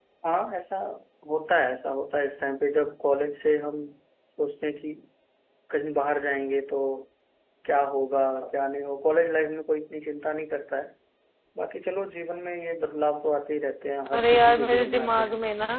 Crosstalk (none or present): present